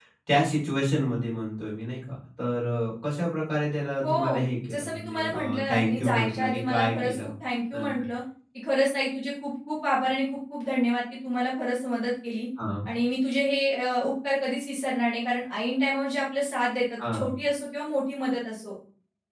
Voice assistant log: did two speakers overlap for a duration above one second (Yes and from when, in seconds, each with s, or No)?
Yes, from 4.0 s